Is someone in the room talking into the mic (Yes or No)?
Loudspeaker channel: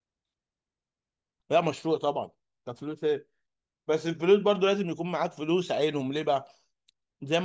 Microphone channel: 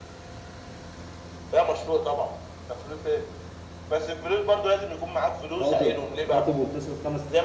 Yes